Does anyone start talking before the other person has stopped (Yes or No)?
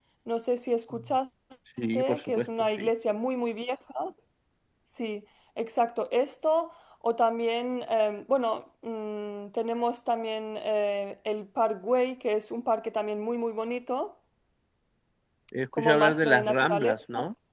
Yes